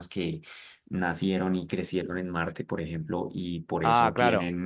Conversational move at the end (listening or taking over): listening